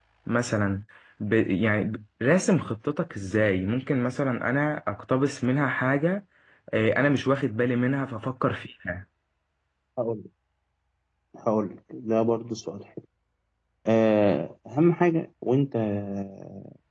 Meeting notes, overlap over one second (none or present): none